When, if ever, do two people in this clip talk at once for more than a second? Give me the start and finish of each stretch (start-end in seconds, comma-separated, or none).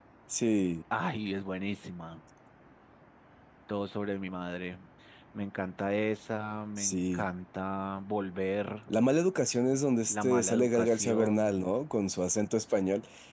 10.1-11.7